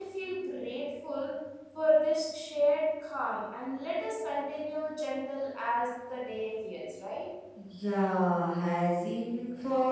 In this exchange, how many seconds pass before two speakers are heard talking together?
none

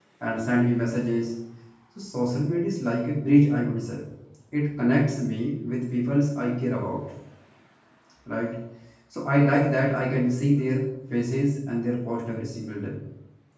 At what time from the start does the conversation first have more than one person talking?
none

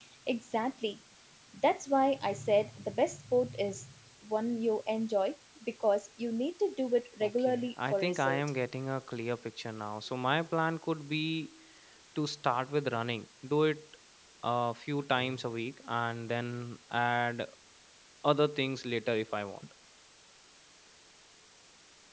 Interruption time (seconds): 7.2 s

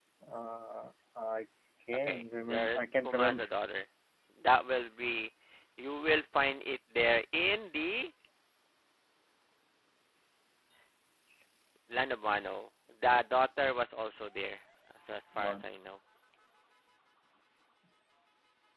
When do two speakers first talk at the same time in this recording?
2.0 s

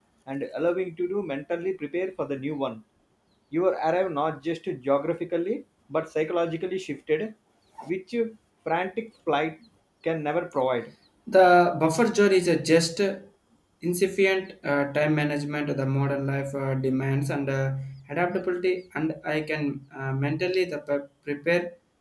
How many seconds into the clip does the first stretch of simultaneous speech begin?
none

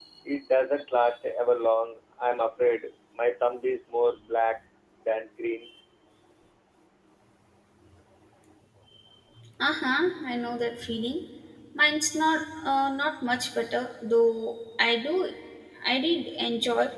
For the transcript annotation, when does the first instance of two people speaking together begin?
none

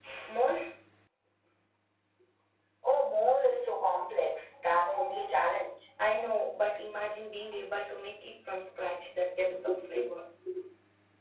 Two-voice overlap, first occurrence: none

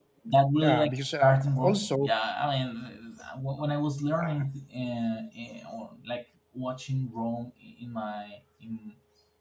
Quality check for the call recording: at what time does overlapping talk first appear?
0.5 s

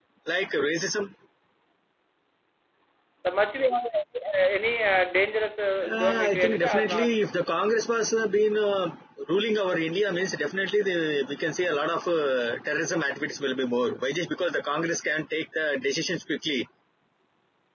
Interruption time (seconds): 5.8 s

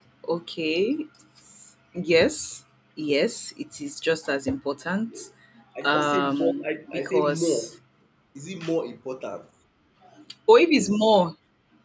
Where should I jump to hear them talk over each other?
5.8 s

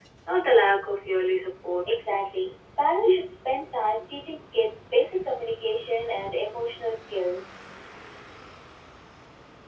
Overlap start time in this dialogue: none

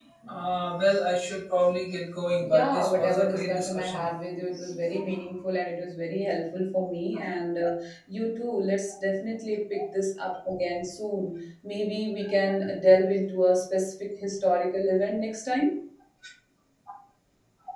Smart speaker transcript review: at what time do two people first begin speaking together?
2.4 s

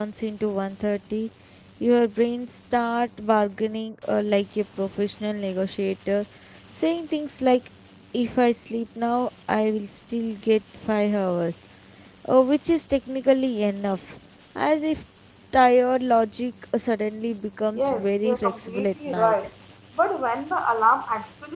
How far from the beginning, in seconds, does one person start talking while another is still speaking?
17.8 s

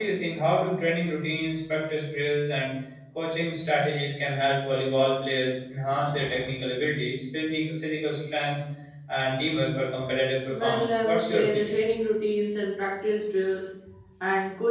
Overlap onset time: 10.5 s

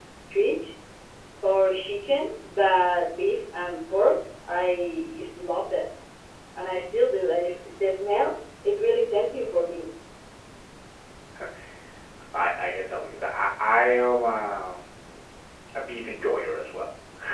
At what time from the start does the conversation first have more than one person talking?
none

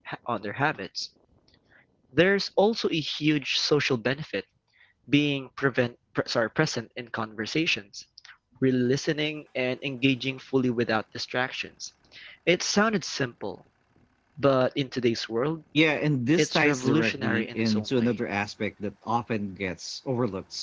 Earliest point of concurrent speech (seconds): 16.4 s

